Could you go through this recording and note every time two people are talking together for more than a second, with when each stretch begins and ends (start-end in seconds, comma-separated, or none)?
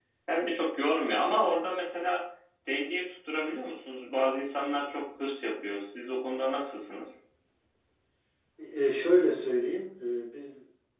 none